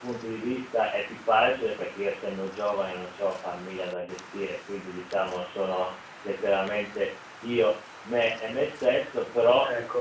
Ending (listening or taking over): listening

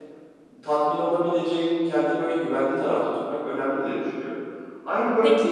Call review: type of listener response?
taking over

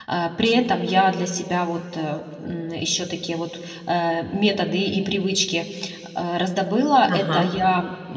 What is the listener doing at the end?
listening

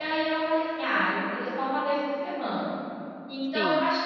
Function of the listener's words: listening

